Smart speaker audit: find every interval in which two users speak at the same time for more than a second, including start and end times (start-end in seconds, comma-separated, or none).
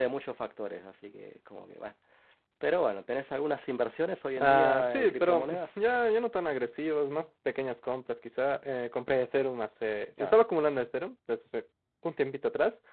4.4-5.6